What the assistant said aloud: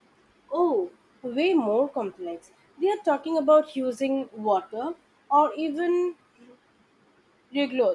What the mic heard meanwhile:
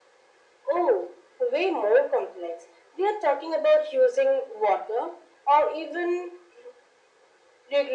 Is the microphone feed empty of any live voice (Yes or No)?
Yes